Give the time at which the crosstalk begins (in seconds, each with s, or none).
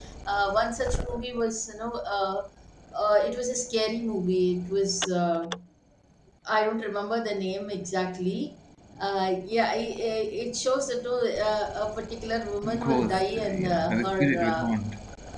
12.6 s